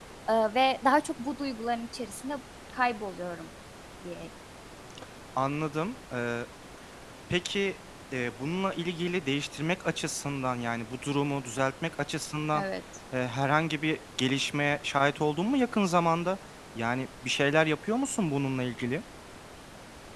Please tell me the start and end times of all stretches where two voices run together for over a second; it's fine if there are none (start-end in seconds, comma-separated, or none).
none